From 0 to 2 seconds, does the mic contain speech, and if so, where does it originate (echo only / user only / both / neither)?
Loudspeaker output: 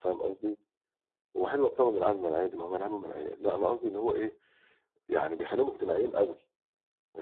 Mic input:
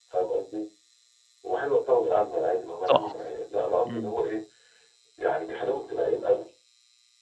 echo only